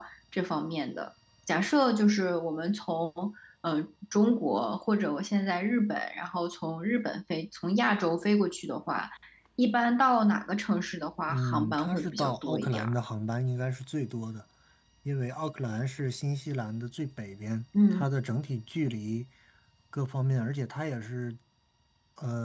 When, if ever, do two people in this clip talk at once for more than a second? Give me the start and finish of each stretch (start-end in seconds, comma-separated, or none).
11.3-12.9